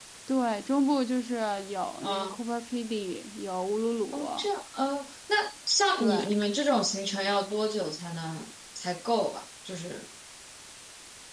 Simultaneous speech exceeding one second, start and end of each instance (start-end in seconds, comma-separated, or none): none